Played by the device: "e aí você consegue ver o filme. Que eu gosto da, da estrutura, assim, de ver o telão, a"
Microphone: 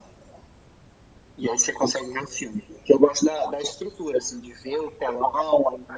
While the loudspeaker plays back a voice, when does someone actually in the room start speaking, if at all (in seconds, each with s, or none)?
none